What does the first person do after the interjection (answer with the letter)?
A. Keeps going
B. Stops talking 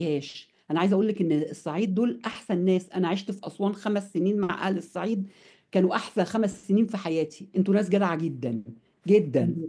A